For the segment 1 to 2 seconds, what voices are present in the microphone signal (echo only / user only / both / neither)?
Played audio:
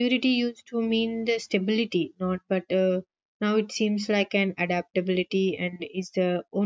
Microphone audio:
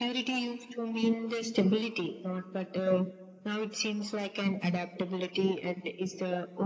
echo only